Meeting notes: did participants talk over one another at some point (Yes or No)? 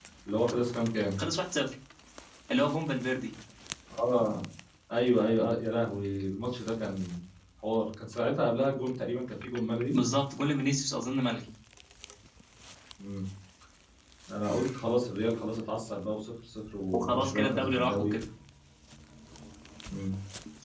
Yes